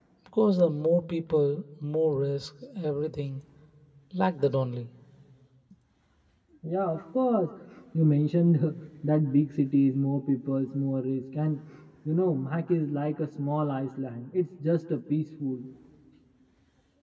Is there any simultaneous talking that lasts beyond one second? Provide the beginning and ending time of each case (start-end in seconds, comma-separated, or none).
none